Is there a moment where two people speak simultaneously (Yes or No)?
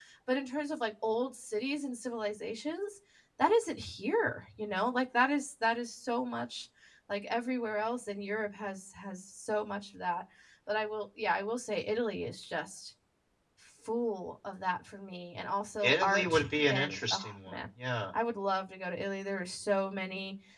Yes